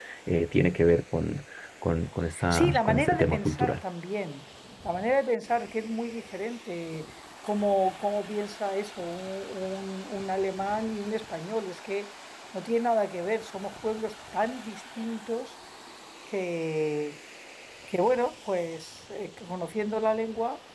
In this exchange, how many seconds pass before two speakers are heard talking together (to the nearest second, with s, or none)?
2 s